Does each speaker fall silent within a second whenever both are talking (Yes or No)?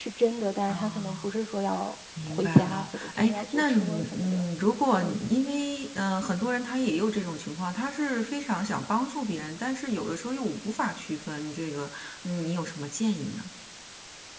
No